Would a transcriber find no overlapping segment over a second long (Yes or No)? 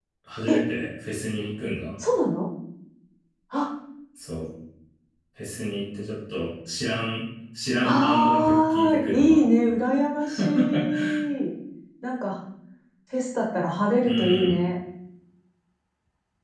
No